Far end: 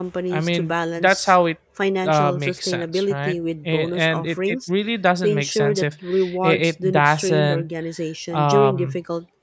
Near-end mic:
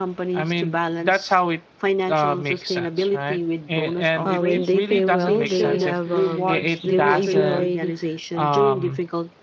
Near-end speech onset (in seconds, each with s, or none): 4.2 s